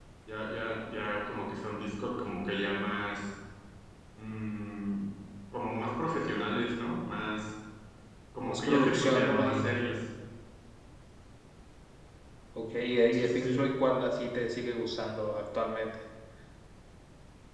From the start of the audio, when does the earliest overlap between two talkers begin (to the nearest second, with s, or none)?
8 s